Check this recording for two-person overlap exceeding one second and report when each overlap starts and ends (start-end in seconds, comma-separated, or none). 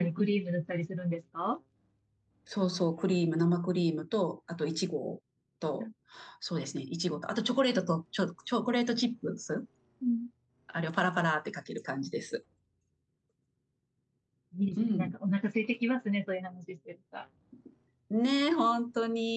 none